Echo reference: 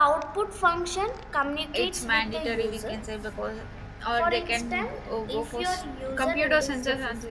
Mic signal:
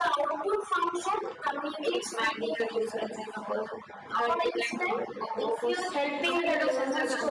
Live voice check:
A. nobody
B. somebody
B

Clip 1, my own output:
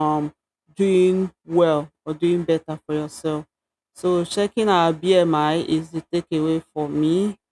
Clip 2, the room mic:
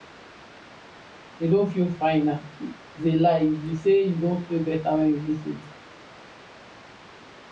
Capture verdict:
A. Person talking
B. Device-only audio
A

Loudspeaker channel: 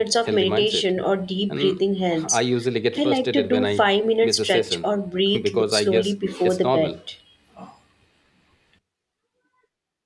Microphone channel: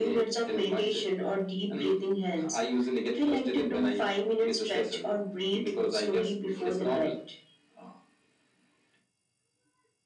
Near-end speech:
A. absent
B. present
A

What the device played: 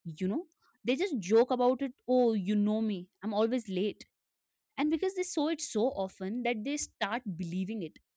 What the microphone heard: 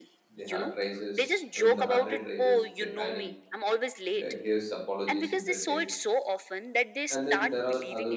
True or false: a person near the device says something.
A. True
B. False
A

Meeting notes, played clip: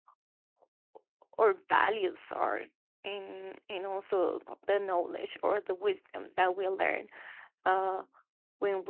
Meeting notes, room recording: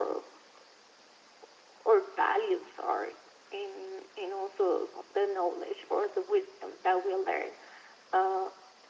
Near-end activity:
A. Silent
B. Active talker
A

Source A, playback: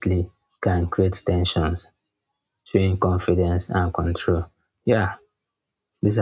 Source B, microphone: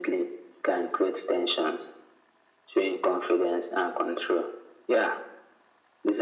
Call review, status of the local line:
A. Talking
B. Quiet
B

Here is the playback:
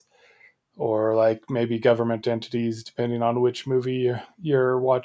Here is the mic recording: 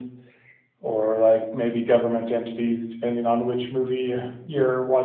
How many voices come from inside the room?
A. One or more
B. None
B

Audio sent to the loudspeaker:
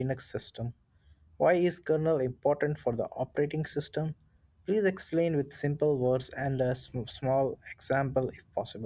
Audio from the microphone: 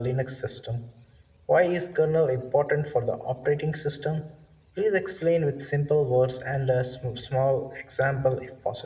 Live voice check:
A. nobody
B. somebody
A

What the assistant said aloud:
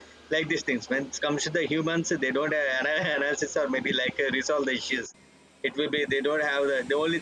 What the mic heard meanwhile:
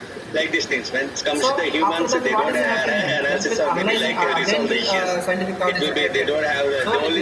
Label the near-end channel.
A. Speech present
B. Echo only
A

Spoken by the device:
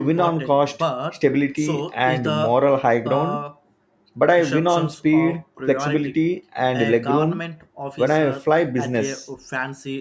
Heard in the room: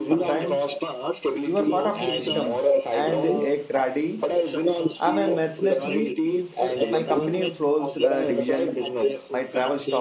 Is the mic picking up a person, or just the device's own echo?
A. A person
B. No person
A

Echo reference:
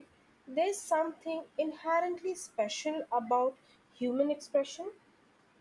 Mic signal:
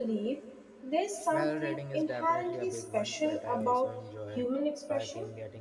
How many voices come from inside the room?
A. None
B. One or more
B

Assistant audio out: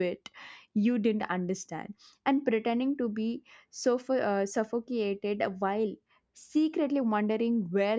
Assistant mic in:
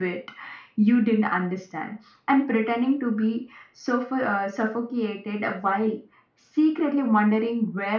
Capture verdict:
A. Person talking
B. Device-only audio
B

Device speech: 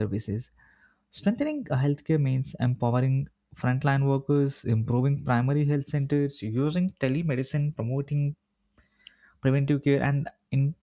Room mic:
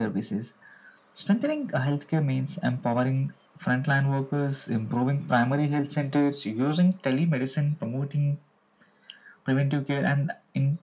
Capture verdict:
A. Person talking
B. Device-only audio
B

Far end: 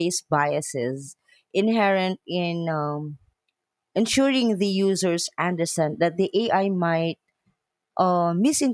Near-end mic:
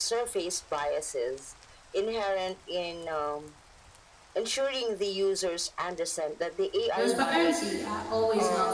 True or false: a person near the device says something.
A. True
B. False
A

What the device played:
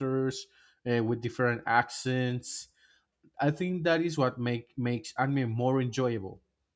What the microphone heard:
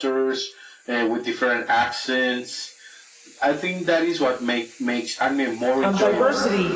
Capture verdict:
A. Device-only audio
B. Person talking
B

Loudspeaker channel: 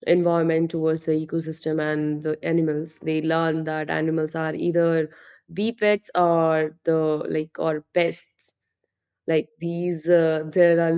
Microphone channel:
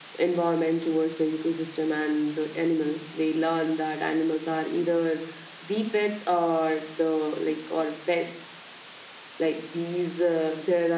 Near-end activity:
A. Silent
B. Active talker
A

